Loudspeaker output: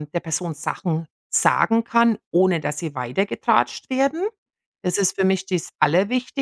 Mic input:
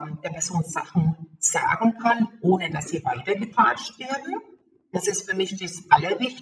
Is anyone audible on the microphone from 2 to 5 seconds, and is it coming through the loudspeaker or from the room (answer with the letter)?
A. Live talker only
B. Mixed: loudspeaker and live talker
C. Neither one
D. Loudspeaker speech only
D